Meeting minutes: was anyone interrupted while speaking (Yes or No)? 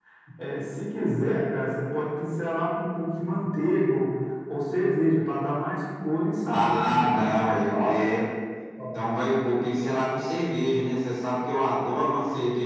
Yes